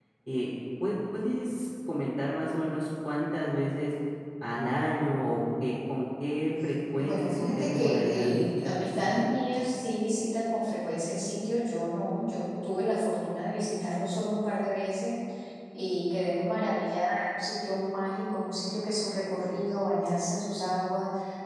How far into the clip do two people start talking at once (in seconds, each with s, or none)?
7.0 s